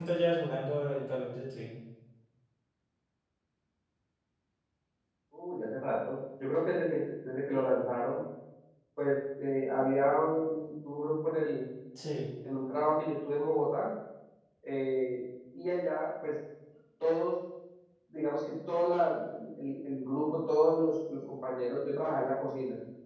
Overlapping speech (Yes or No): No